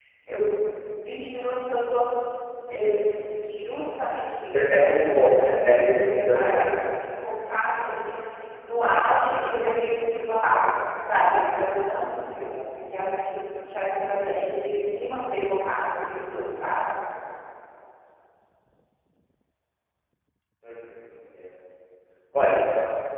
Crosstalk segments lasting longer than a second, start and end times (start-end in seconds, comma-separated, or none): 4.8-6.7